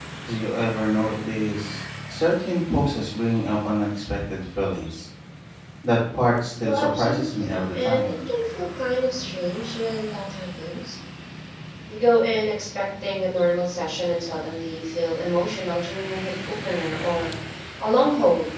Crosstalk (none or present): present